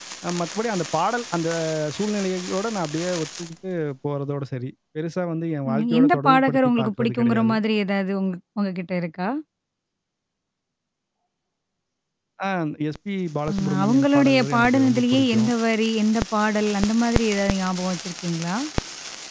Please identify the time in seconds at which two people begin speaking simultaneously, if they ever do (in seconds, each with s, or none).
5.7 s